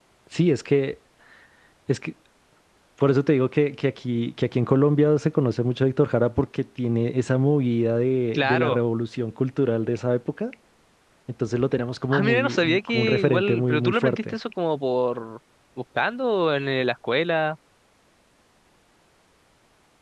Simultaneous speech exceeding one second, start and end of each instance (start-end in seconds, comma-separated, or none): 12.1-14.3